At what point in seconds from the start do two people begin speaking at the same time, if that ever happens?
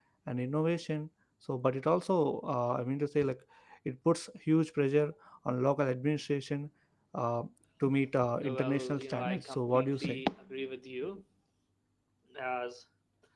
8 s

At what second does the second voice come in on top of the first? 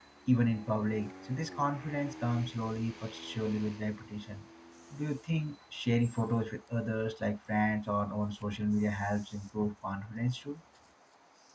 none

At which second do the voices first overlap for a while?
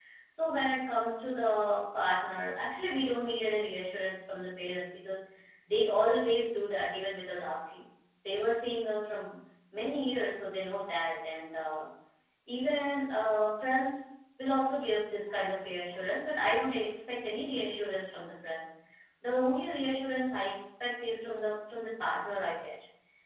none

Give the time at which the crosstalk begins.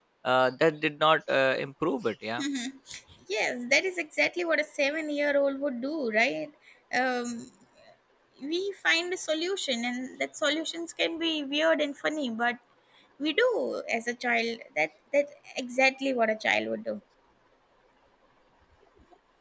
none

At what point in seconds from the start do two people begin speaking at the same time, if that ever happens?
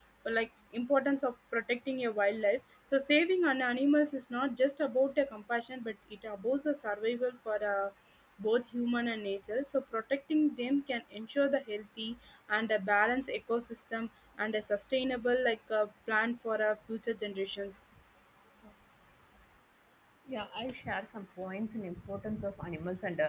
none

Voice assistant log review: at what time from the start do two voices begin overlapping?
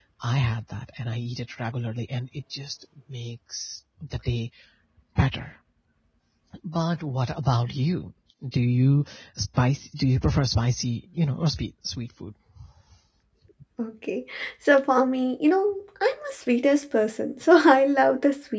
none

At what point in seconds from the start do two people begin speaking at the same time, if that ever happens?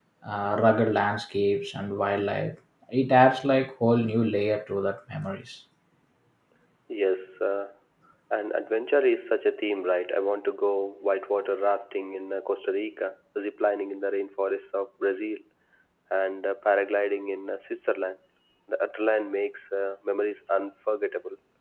none

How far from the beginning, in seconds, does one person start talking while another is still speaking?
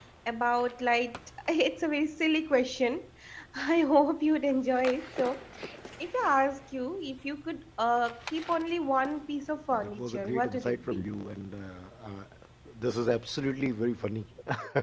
10 s

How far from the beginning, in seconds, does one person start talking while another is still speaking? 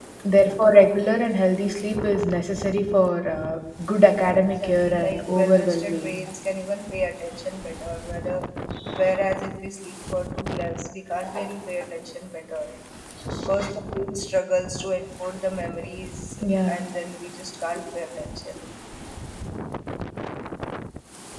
4 s

